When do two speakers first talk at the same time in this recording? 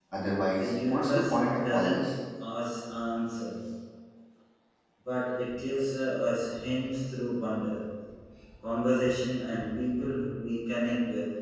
0.6 s

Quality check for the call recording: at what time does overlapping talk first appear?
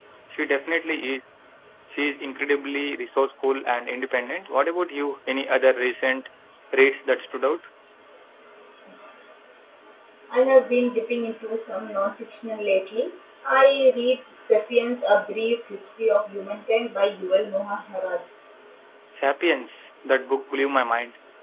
none

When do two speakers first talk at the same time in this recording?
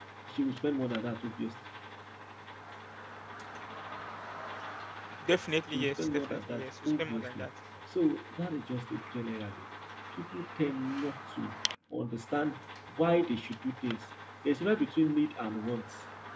5.7 s

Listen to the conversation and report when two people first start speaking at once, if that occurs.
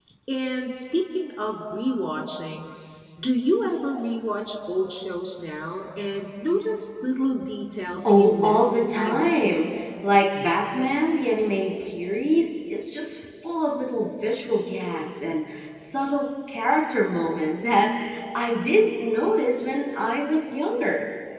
8.0 s

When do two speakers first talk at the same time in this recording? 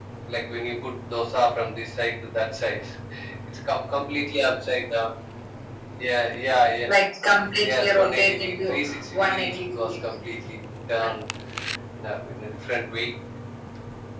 7.7 s

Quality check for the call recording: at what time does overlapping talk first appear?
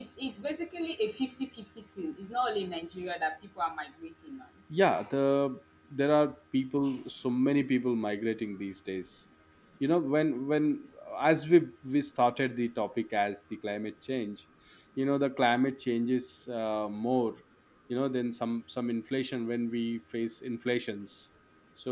none

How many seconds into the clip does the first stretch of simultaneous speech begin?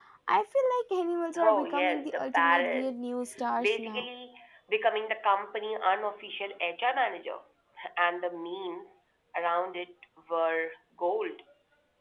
1.4 s

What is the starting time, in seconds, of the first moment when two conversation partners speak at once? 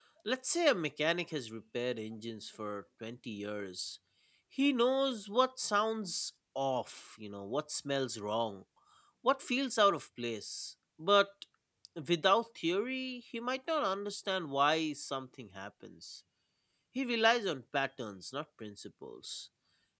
none

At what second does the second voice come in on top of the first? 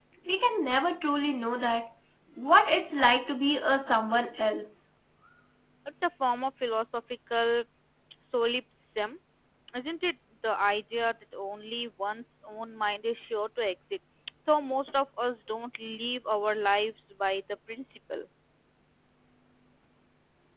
none

